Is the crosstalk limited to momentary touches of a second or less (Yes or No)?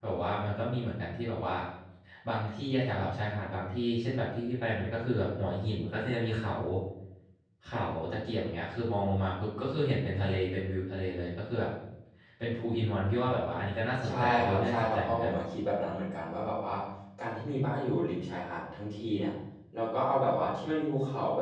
No